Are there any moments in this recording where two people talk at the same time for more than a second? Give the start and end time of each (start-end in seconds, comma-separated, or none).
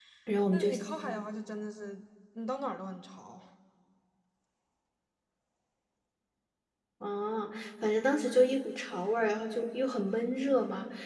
none